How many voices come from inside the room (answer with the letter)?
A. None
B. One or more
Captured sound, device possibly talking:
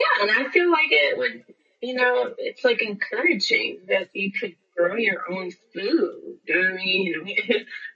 A